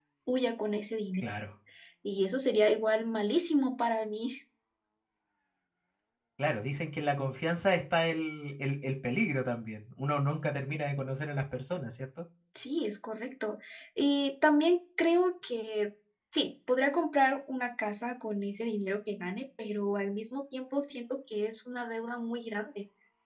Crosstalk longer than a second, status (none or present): none